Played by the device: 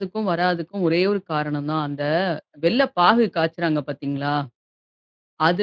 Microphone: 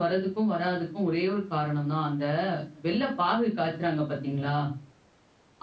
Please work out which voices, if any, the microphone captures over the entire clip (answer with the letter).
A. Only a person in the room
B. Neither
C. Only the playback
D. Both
C